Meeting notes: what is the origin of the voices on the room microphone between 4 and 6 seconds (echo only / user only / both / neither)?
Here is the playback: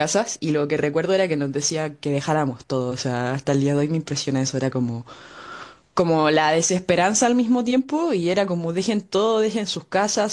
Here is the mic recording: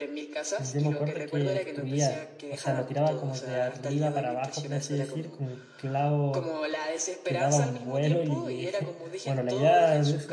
both